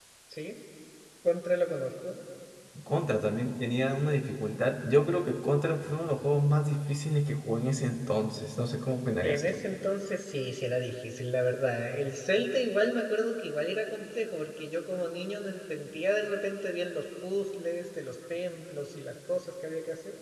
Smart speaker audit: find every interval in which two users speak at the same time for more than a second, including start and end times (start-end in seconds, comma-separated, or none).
none